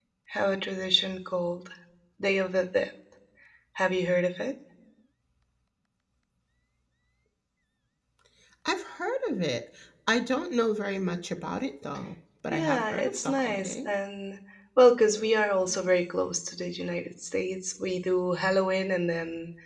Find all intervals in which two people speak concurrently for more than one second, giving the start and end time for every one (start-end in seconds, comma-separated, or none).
12.5-13.9